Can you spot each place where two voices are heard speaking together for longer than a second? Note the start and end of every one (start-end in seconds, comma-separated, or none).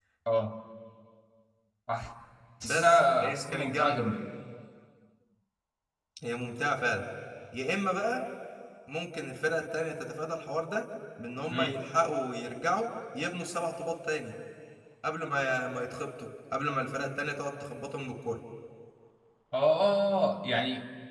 2.7-4.1